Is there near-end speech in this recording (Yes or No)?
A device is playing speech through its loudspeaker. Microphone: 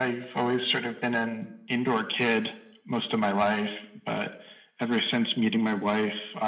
No